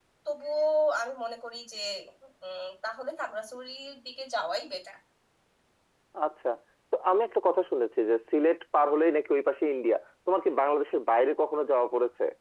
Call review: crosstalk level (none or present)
none